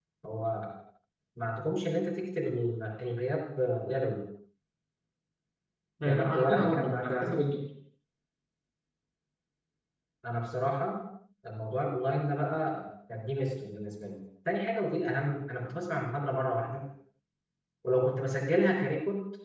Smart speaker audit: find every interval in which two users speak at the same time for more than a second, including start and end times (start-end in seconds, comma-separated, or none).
6.0-7.3